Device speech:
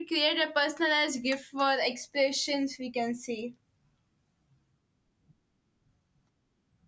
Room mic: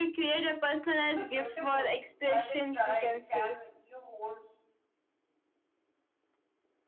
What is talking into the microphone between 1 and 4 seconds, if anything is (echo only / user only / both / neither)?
both